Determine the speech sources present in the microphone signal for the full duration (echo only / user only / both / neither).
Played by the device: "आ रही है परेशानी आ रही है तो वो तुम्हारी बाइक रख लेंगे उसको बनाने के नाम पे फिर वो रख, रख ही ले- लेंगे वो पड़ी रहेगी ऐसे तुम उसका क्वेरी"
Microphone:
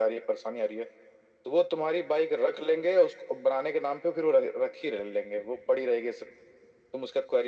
echo only